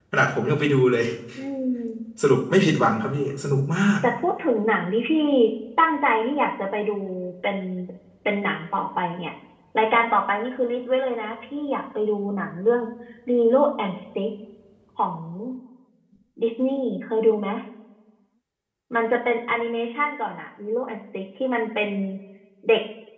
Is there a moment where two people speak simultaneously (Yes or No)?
No